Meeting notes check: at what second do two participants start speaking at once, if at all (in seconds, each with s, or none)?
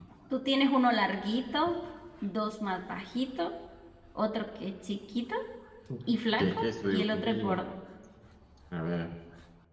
6.4 s